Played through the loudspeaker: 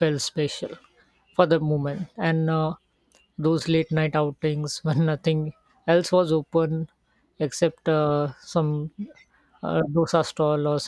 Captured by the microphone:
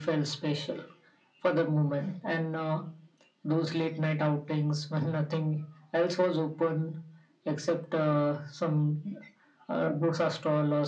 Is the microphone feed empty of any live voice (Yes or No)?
Yes